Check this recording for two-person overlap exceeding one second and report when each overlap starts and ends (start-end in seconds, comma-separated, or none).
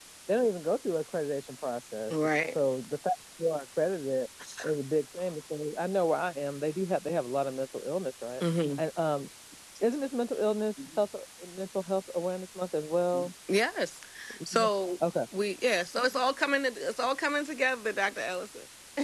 none